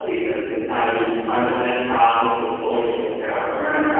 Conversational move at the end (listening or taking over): listening